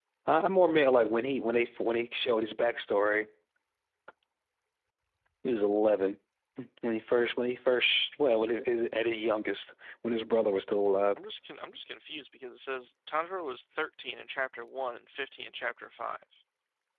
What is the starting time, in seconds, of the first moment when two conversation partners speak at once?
none

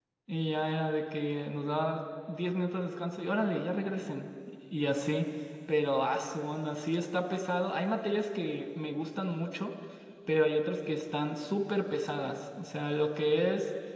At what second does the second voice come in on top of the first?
none

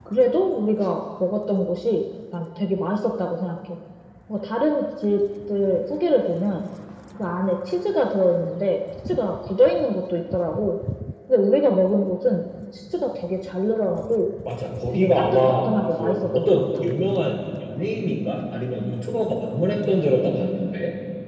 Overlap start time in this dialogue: 14.9 s

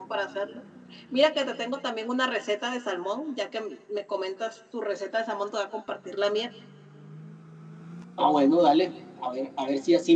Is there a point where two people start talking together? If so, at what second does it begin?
none

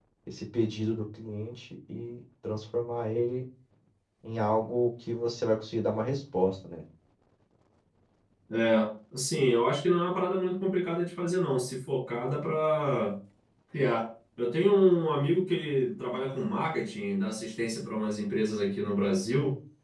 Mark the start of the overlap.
none

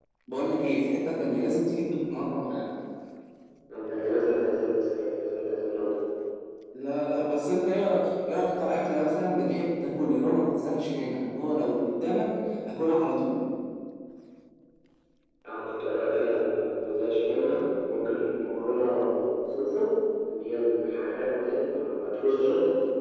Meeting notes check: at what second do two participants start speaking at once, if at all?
none

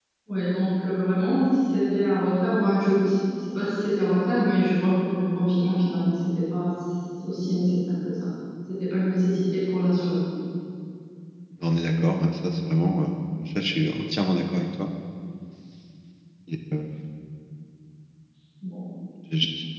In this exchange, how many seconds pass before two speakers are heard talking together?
none

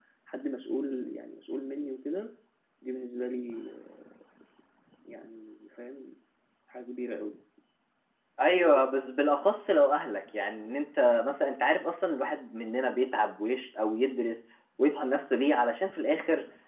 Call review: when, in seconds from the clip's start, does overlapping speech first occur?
none

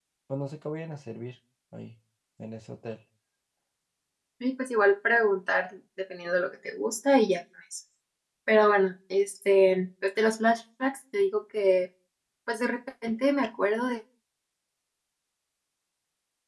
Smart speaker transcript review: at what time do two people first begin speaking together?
none

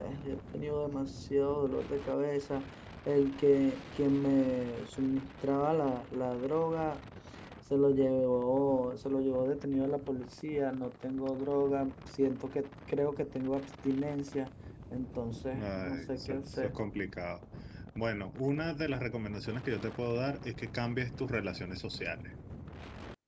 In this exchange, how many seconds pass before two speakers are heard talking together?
15.5 s

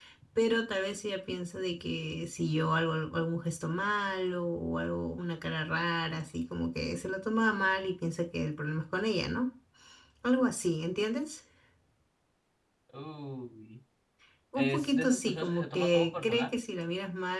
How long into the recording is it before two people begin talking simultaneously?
14.6 s

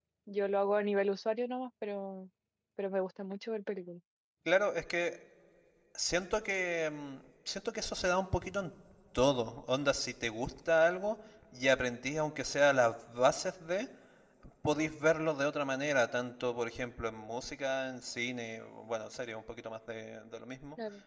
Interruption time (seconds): none

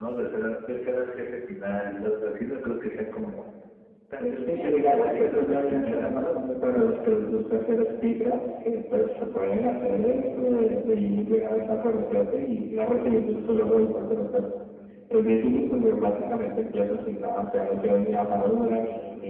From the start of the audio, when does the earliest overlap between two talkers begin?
4.2 s

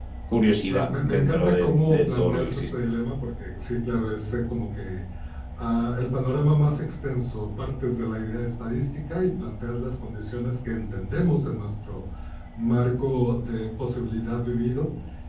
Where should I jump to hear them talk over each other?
0.7 s

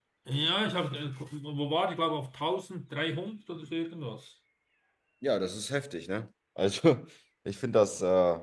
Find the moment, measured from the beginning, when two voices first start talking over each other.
none

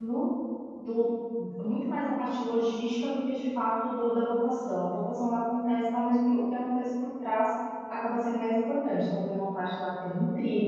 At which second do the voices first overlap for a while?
none

